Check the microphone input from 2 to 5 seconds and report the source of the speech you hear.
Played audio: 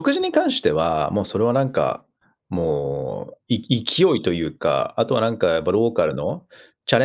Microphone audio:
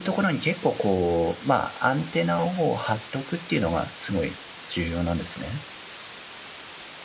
user only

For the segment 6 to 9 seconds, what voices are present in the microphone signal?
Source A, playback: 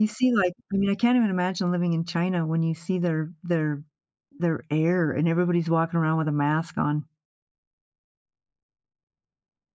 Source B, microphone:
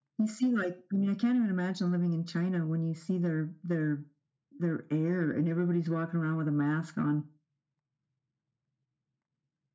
echo only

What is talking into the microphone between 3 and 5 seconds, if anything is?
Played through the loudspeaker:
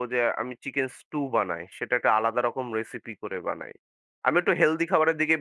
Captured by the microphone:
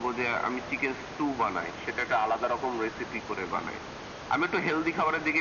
echo only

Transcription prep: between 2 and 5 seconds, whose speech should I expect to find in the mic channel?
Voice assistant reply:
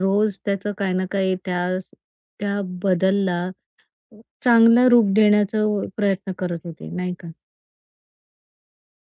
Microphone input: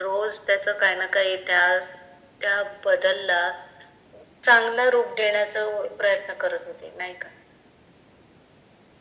echo only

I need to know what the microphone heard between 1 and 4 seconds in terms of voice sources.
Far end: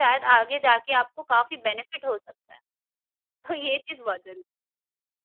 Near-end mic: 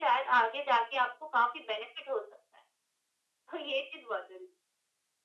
echo only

